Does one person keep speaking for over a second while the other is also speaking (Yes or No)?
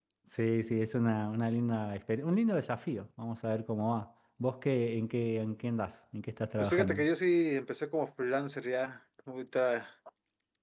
No